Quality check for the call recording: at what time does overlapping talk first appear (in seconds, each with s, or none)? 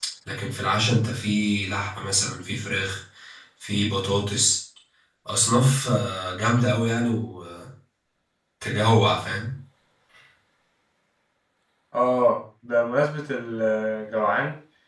none